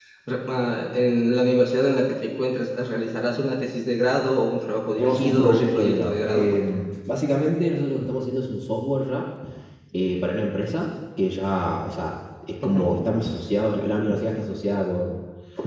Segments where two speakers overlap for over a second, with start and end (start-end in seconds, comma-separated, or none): 5.0-6.6